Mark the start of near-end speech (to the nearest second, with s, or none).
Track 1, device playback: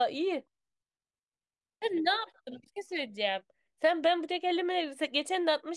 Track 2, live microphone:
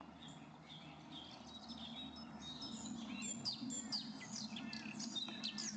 none